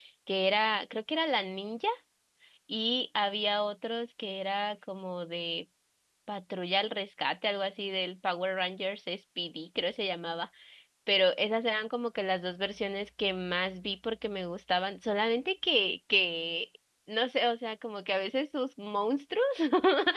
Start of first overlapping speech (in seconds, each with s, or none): none